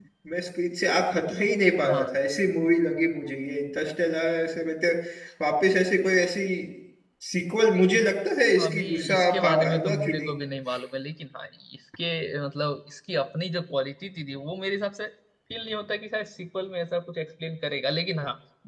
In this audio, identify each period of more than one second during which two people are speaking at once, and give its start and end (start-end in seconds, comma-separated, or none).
8.6-10.3